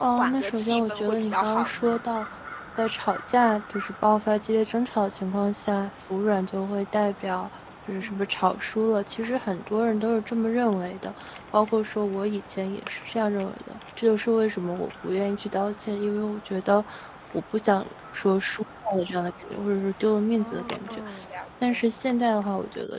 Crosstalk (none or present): present